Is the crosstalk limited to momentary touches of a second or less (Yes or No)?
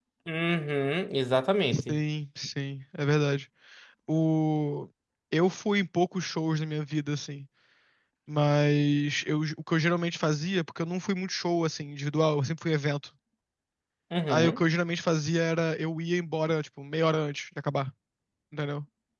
Yes